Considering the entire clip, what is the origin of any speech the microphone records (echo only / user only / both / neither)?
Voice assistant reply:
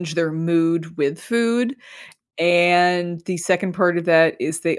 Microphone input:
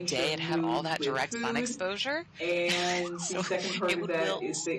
both